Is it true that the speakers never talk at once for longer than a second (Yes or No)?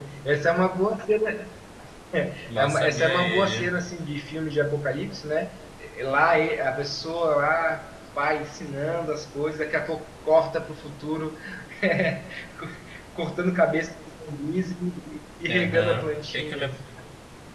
No